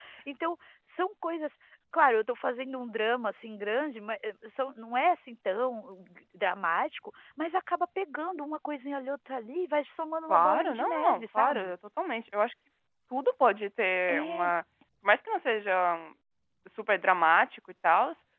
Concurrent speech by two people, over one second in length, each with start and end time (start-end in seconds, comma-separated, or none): 10.3-11.7